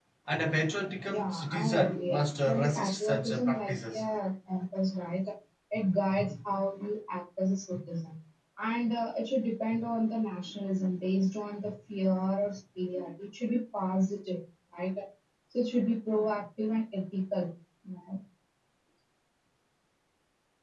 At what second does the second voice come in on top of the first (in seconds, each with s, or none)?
1.1 s